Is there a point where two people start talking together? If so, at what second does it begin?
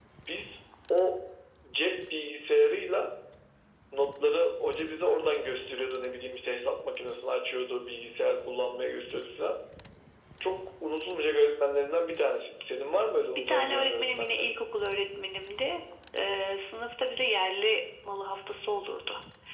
13.4 s

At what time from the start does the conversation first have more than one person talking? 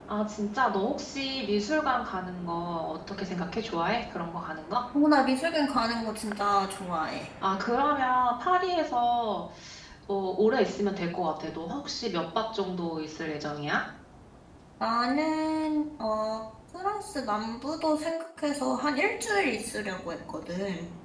none

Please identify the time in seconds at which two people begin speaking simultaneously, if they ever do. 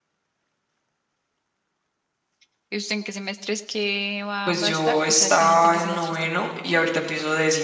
4.5 s

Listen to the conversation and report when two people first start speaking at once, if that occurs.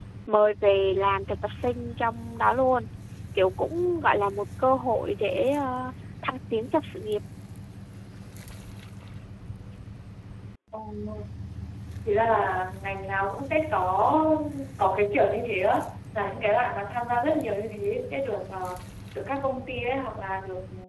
none

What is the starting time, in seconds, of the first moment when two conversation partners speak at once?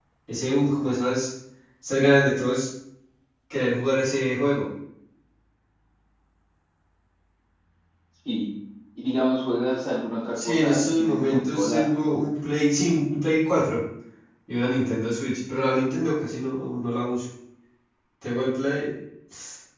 10.3 s

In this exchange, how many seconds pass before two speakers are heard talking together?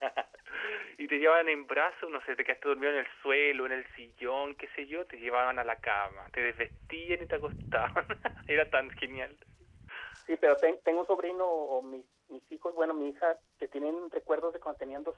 none

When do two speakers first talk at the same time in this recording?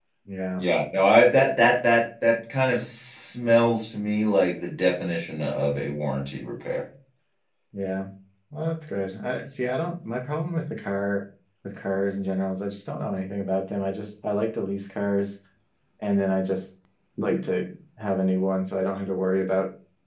none

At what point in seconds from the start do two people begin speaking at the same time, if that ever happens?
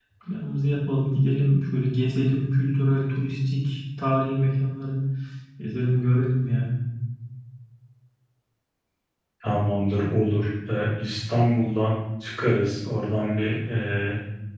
none

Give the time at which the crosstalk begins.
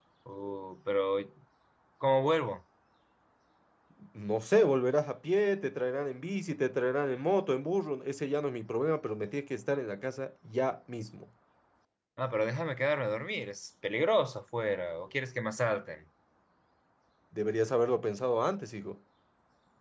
none

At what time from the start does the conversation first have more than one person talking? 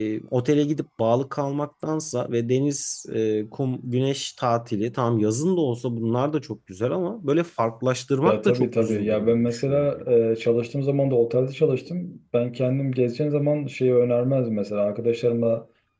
8.2 s

